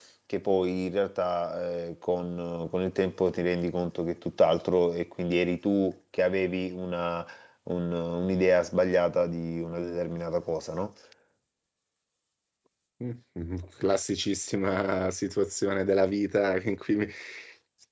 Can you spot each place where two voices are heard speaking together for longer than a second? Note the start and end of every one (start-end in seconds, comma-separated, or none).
none